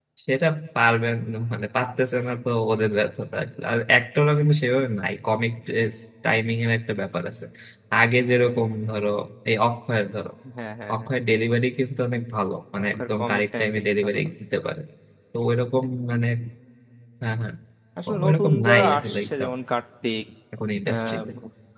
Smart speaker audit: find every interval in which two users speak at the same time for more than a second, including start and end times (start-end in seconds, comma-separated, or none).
12.8-14.3, 18.2-19.5